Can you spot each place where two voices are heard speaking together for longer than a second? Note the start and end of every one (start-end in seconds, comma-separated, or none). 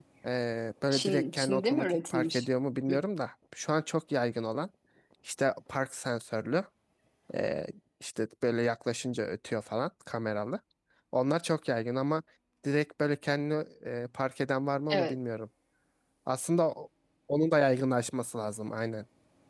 0.9-2.4